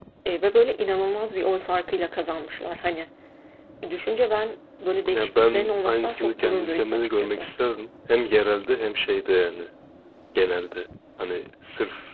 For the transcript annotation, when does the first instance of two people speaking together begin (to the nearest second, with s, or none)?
5 s